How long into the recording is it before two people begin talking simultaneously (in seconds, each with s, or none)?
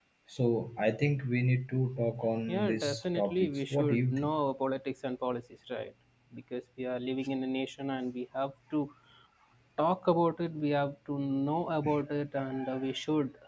2.5 s